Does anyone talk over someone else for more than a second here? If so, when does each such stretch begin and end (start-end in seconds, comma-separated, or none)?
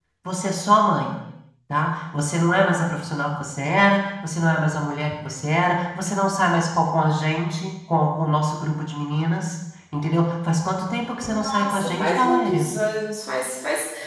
11.2-12.7